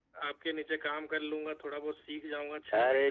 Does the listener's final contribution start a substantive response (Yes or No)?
Yes